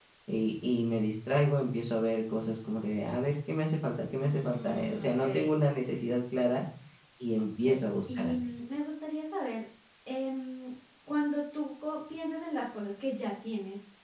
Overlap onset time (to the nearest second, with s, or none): 4 s